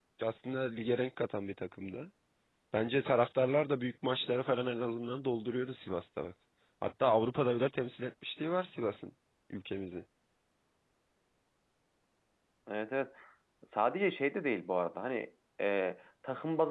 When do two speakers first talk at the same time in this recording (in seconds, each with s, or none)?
none